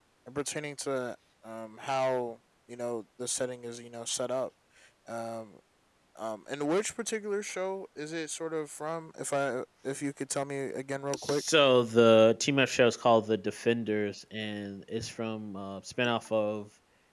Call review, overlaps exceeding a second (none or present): none